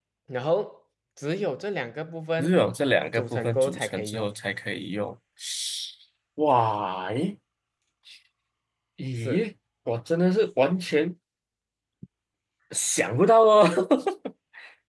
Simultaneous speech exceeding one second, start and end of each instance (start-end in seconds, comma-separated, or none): 3.1-4.4